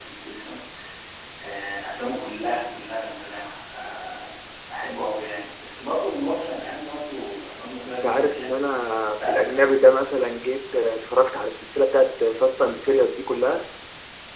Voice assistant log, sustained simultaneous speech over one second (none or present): present